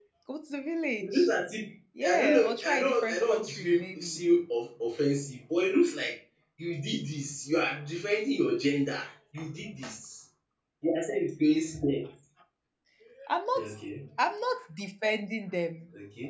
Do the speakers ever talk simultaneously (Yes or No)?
Yes